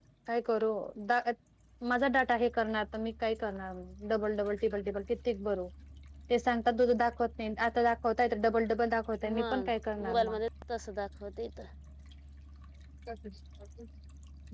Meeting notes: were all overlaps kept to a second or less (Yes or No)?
Yes